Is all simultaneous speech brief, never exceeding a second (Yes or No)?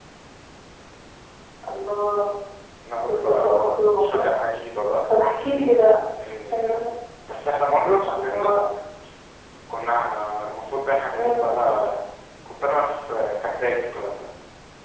No